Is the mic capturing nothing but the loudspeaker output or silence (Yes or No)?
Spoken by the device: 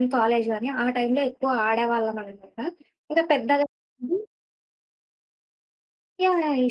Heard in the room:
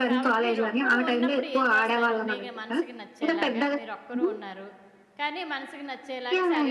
No